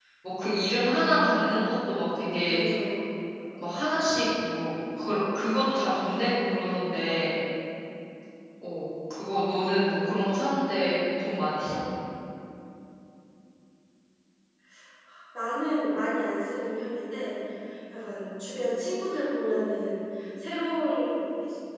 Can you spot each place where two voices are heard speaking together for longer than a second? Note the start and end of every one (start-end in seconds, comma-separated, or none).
none